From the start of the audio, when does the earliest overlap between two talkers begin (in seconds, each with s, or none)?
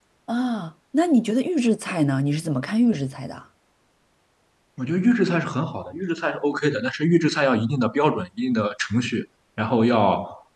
none